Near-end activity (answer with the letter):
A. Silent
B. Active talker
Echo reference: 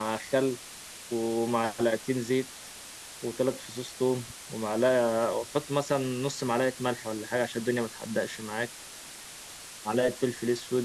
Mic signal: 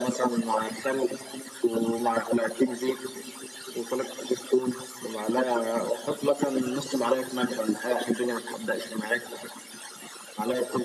A